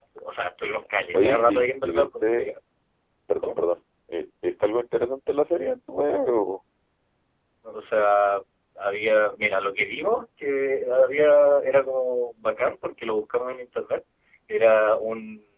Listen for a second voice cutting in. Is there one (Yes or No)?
Yes